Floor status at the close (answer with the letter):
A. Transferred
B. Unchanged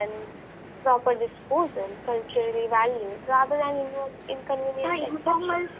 A